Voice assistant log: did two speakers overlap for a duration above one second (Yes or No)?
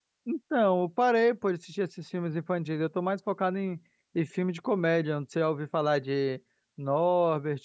No